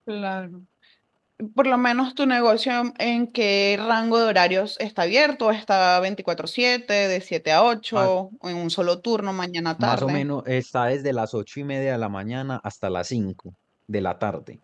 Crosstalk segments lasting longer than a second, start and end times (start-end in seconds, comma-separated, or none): none